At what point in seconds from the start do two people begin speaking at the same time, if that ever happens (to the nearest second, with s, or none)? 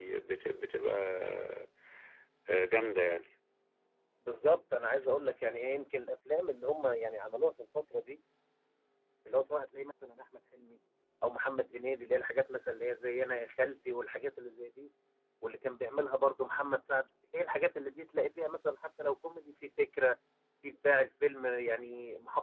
none